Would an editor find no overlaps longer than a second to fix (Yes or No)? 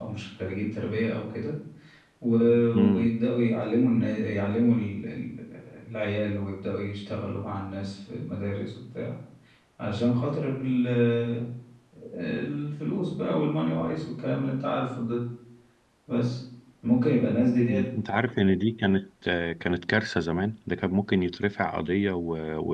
Yes